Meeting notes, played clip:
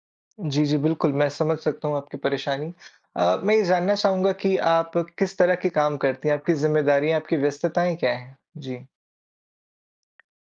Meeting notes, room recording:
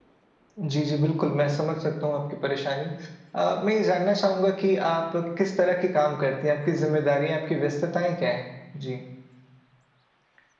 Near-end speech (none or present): none